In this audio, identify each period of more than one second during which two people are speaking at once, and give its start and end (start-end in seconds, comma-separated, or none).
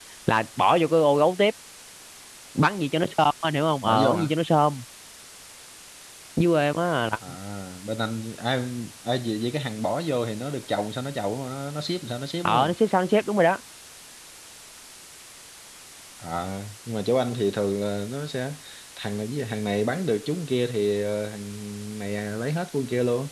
none